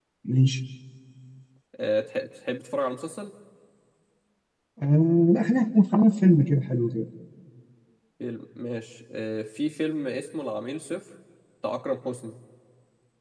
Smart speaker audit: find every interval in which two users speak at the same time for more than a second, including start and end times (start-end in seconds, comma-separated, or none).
none